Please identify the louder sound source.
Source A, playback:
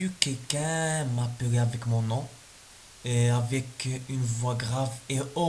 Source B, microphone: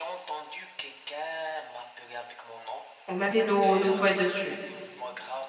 user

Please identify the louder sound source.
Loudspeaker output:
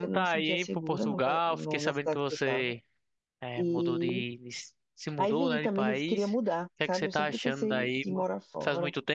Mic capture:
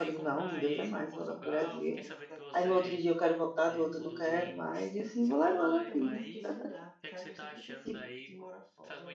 user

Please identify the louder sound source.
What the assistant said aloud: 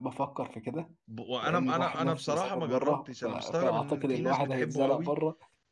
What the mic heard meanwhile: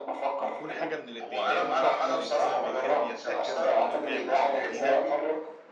echo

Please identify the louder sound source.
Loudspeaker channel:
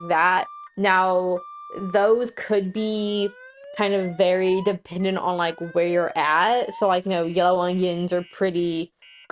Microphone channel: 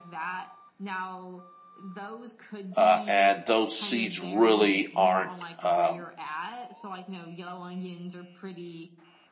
user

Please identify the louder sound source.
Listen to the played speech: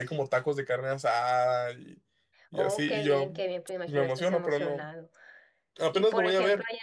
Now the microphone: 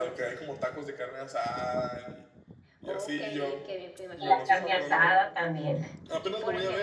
user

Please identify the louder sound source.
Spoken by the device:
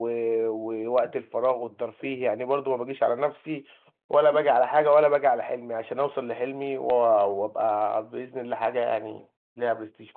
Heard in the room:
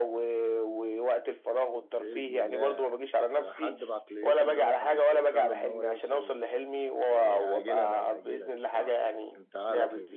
echo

